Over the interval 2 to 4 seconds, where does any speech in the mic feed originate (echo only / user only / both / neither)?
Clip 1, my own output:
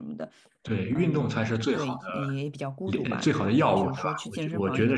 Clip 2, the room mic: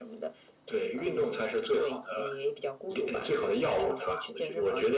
echo only